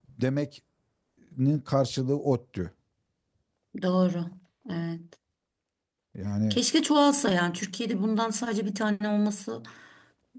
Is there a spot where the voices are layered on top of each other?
No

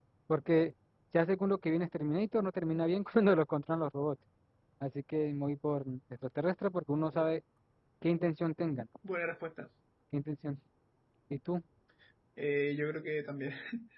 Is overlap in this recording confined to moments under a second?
Yes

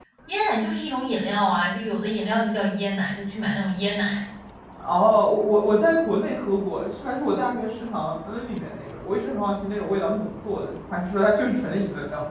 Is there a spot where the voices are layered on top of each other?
No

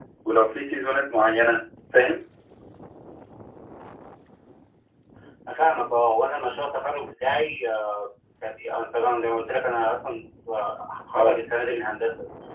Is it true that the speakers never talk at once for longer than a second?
Yes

